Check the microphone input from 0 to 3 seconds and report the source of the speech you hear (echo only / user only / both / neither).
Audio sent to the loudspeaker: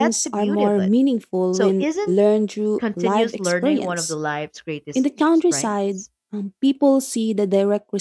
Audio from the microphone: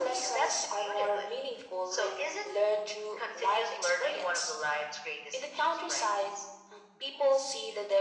echo only